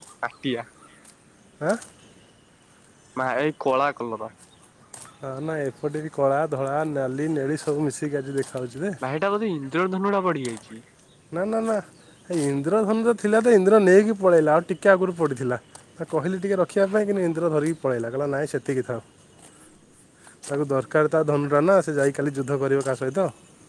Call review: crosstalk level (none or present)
none